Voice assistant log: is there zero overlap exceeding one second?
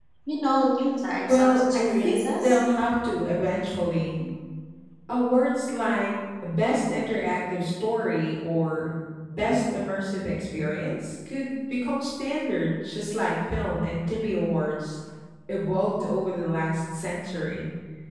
No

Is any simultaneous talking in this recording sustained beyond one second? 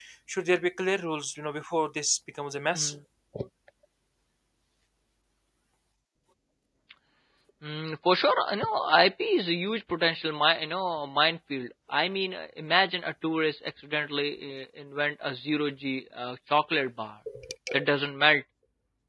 No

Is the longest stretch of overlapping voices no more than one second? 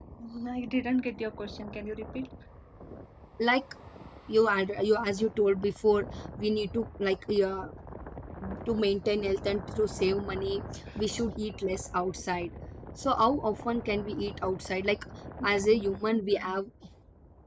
Yes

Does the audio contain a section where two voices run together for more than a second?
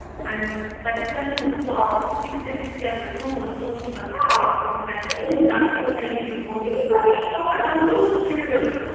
No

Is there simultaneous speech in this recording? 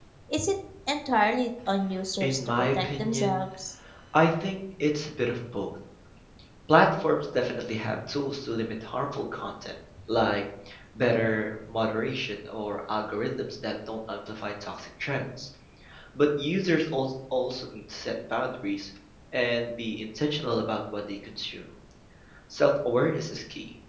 Yes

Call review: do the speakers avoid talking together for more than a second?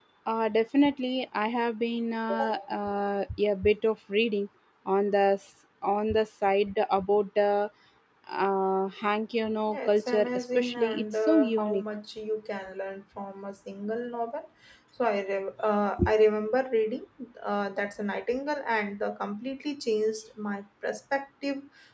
No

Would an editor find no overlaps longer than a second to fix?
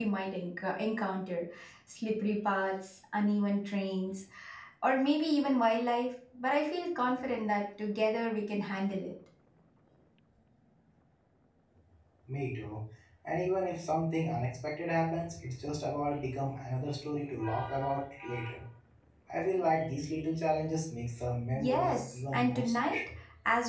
No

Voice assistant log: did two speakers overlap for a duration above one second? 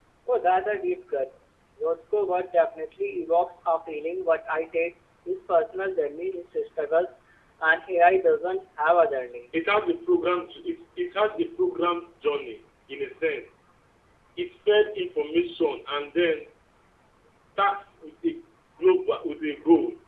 No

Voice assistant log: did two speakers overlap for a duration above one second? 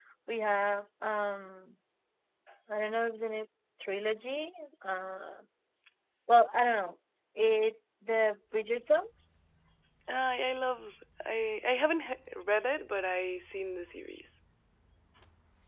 No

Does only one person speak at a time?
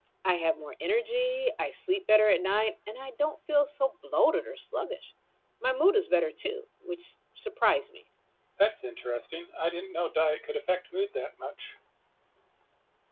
Yes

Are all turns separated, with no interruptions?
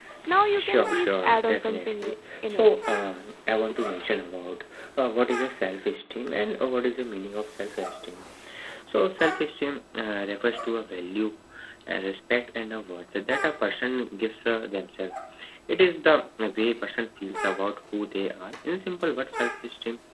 No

